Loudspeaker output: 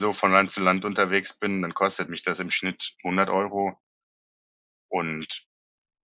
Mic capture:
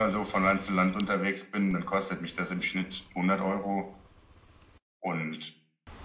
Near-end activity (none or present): none